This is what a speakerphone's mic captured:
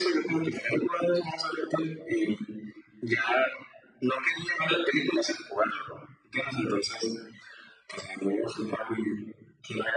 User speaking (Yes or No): No